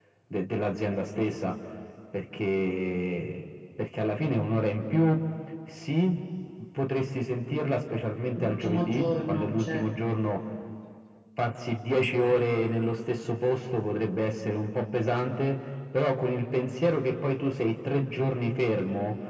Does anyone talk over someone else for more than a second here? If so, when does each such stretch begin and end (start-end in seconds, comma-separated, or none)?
8.4-9.9